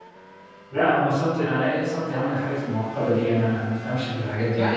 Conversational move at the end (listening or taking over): taking over